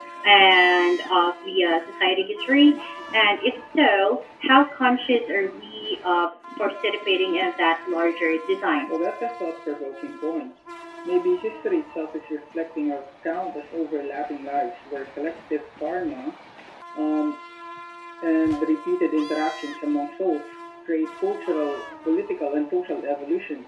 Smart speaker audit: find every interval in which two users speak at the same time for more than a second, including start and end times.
none

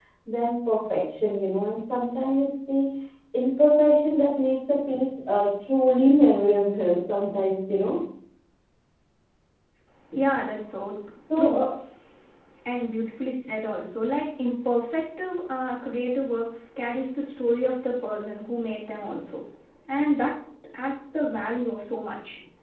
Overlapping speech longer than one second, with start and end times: none

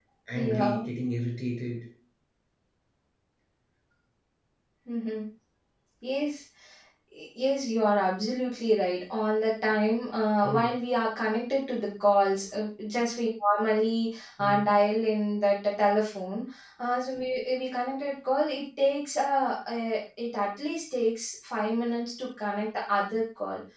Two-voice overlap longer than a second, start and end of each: none

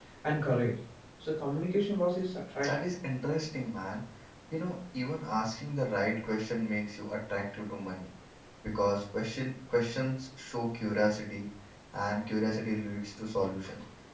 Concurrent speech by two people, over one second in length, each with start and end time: none

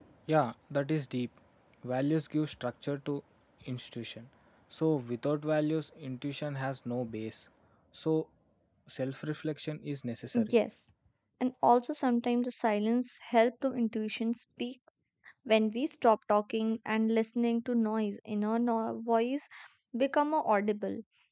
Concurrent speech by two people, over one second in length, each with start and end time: none

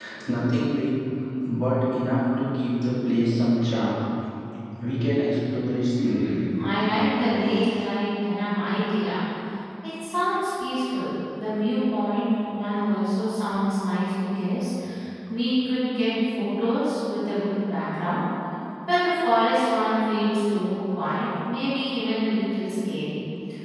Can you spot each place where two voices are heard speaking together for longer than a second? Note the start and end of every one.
none

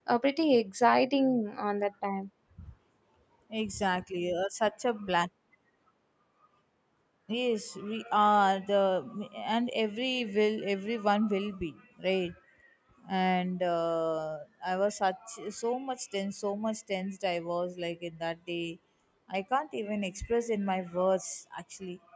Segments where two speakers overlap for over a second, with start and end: none

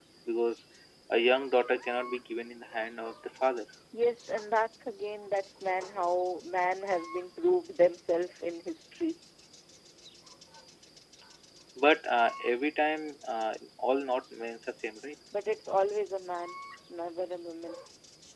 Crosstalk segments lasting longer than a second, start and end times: none

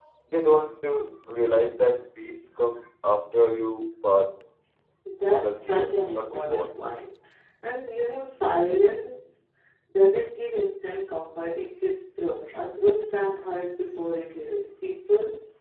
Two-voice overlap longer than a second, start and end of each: 5.3-6.7

